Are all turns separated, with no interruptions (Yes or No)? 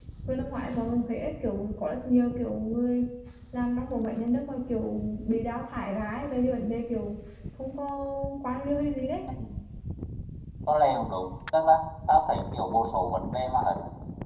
Yes